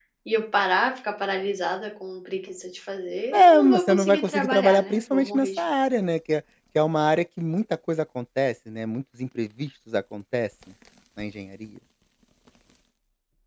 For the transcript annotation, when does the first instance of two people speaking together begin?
3 s

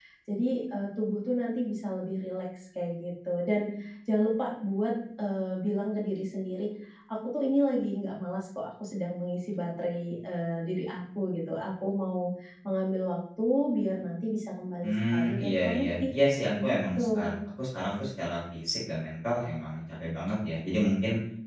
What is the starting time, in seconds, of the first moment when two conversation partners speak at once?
15 s

